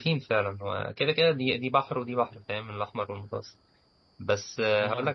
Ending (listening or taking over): listening